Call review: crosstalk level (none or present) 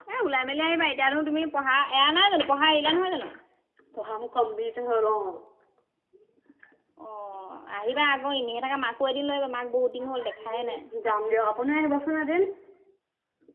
none